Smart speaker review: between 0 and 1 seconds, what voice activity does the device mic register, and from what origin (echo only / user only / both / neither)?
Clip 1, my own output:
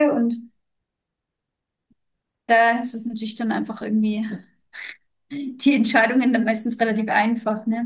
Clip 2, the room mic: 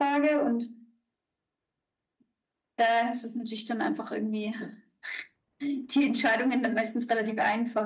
echo only